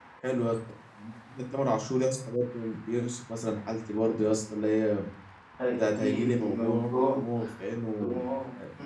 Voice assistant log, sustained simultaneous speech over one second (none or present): present